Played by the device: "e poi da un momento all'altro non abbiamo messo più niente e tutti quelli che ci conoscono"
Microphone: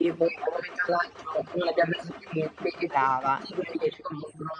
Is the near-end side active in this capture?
Yes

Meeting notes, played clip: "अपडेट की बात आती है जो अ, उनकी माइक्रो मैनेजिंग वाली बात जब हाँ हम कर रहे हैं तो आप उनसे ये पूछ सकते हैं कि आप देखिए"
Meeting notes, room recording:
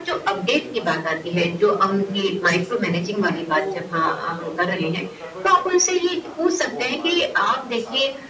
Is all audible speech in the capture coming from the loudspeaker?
No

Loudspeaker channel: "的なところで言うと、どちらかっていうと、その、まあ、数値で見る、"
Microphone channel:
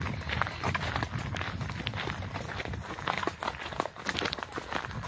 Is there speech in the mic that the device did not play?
No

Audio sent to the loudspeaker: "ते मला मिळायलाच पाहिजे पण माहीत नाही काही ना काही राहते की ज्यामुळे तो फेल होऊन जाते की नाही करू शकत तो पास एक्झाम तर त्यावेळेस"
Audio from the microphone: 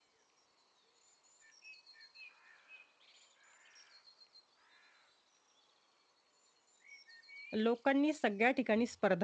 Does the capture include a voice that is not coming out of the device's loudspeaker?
Yes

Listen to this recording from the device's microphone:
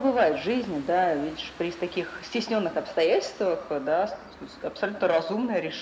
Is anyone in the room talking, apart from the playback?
No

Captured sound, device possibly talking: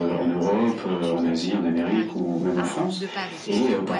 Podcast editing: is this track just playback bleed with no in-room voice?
No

